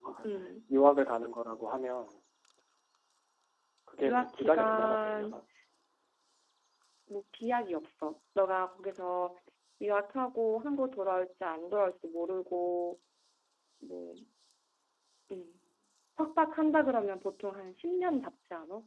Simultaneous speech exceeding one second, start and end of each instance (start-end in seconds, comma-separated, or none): 4.0-5.4